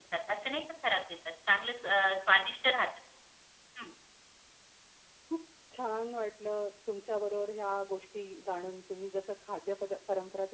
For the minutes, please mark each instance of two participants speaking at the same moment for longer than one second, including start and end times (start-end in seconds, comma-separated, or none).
none